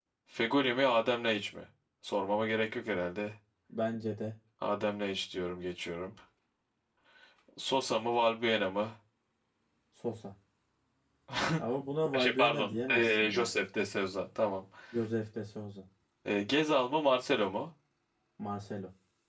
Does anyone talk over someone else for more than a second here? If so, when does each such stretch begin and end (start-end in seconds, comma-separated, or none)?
12.2-13.6